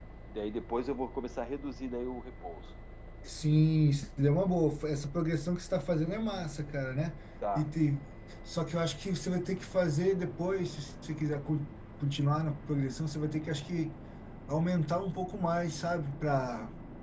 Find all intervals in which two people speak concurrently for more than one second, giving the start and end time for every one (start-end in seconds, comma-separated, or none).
none